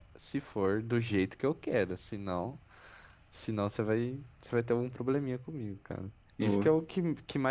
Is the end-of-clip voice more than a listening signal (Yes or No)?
No